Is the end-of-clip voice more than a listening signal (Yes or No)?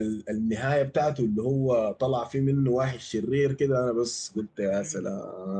Yes